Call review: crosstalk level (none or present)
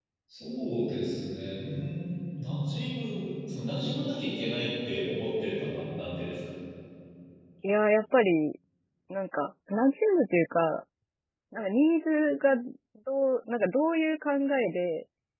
none